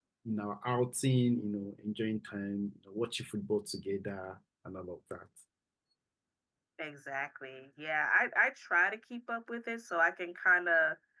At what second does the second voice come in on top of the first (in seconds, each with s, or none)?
none